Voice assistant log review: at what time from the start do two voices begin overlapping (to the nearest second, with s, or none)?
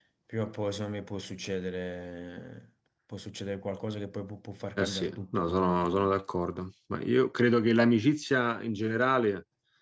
5 s